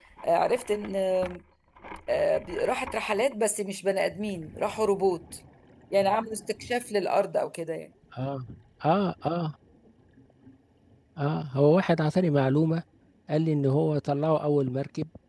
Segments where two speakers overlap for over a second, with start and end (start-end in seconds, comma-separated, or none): none